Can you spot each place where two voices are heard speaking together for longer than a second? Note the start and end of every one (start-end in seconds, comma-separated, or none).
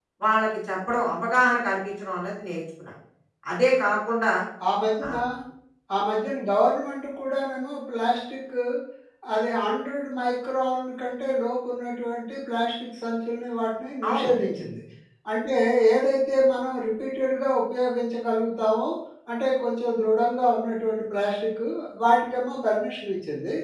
none